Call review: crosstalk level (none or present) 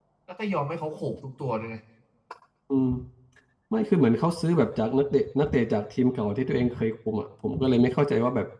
none